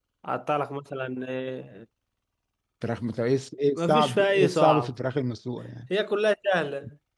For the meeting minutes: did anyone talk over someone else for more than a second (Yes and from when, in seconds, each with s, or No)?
Yes, from 3.8 s